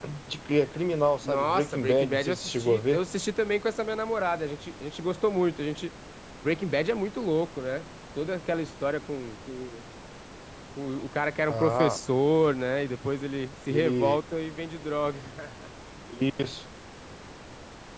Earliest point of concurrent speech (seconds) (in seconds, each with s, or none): 1.2 s